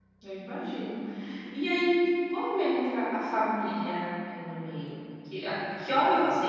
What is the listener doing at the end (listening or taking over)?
listening